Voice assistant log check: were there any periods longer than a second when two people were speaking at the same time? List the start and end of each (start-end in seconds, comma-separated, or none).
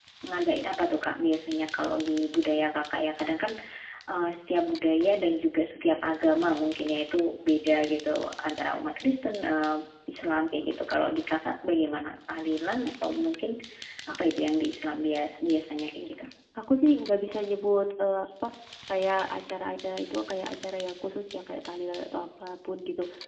none